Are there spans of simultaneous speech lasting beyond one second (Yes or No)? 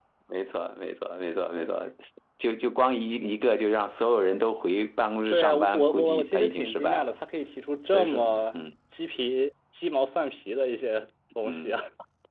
Yes